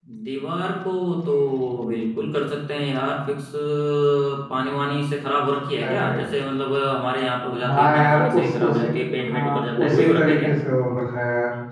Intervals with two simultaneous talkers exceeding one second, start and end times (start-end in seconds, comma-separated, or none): 7.6-8.8, 9.3-10.5